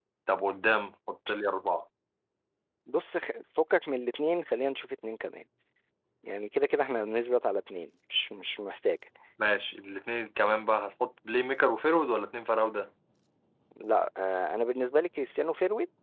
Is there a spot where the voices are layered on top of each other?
No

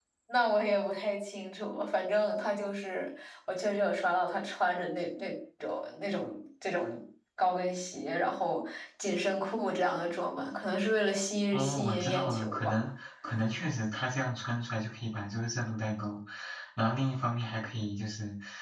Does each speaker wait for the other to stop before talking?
No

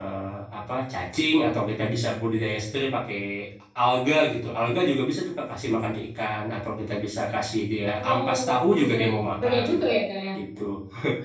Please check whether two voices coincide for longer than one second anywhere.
Yes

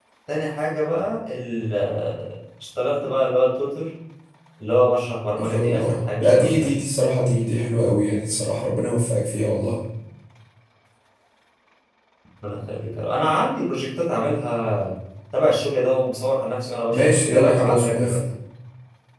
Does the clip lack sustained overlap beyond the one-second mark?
No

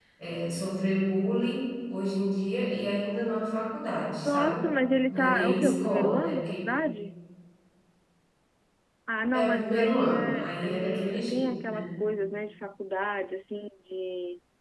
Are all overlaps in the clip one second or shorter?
No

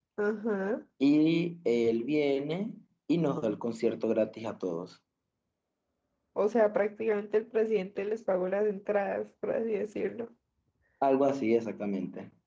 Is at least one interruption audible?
No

